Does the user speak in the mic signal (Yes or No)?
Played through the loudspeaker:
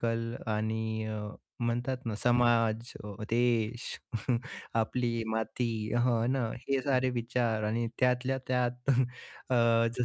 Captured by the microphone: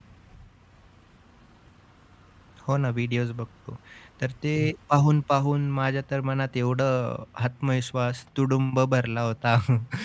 Yes